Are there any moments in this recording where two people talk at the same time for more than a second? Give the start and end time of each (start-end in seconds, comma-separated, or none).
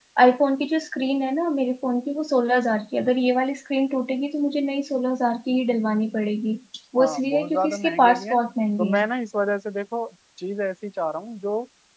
7.0-8.4